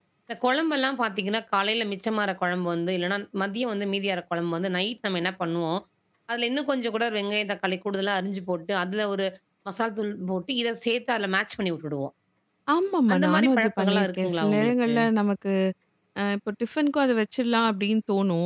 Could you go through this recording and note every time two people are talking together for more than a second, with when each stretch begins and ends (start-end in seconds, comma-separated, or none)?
13.1-14.9